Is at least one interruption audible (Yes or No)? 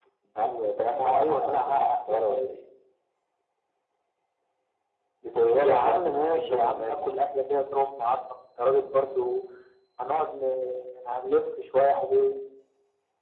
Yes